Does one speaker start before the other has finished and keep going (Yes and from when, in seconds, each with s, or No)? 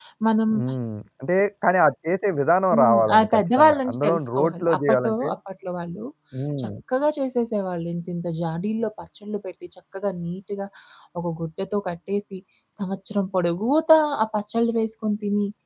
Yes, from 2.7 s